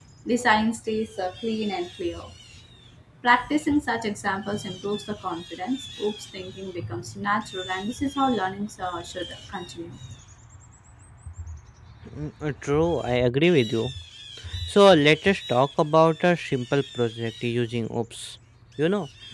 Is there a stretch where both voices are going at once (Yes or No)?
No